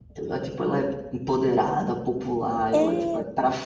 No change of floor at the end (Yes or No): Yes